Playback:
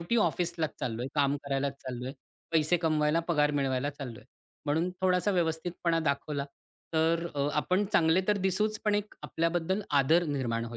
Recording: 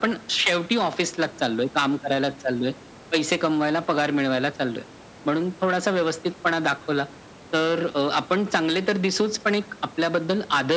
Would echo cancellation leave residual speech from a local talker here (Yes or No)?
No